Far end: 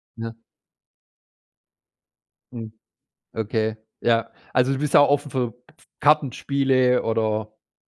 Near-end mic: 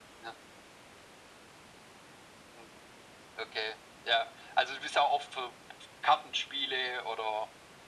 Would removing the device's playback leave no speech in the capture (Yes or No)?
Yes